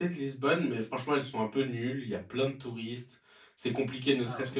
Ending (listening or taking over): listening